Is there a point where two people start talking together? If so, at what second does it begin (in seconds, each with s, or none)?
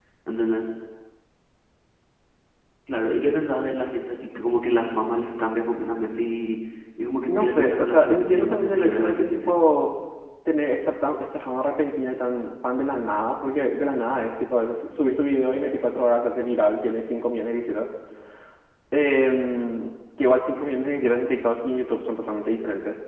7.3 s